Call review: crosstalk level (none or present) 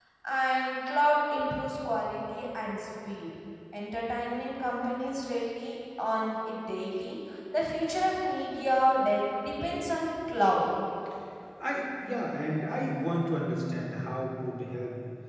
none